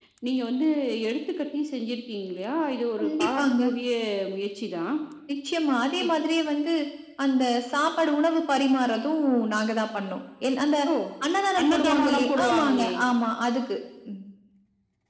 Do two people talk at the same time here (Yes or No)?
Yes